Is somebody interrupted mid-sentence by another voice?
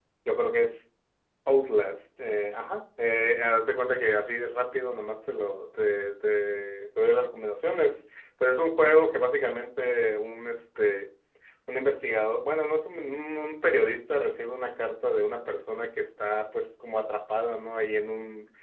No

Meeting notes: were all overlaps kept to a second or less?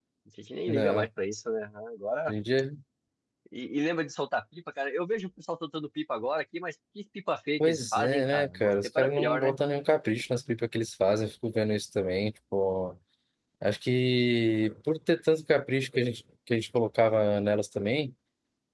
No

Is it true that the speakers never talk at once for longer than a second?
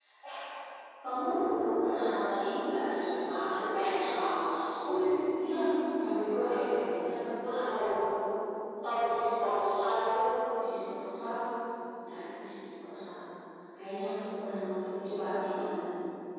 Yes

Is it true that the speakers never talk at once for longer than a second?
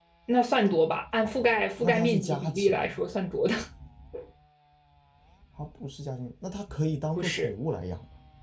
No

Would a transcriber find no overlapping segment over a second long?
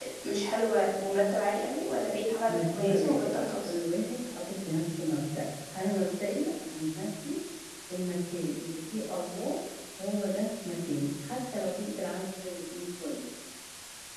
No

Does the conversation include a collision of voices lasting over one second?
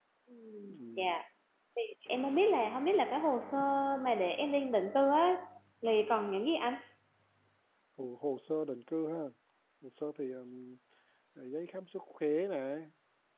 No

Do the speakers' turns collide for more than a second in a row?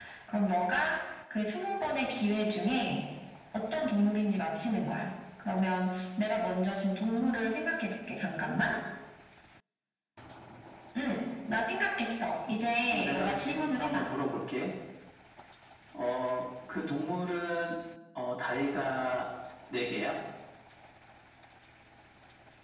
Yes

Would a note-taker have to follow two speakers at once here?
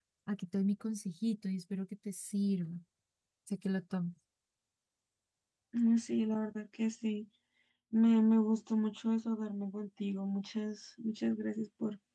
No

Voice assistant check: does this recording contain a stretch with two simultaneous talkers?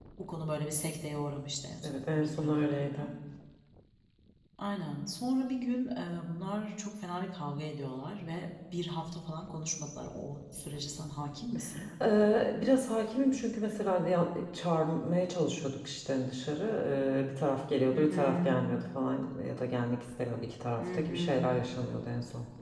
Yes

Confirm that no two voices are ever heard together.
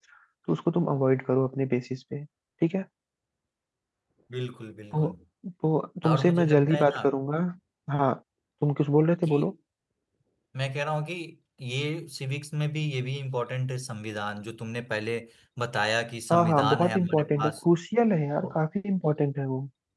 No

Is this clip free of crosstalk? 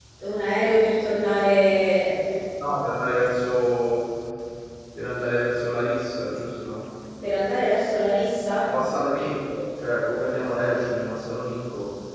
Yes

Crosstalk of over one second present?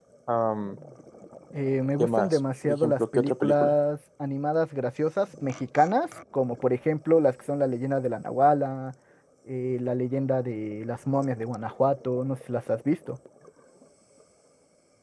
Yes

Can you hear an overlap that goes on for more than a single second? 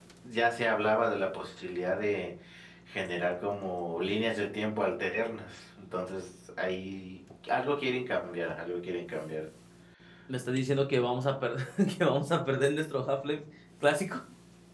No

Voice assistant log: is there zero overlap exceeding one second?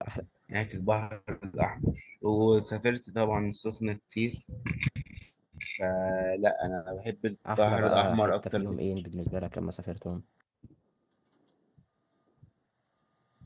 No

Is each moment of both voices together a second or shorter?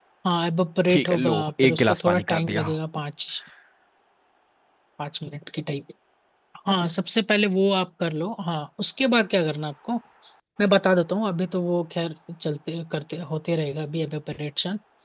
No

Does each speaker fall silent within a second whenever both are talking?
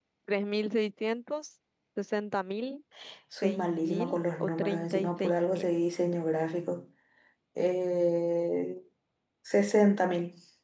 No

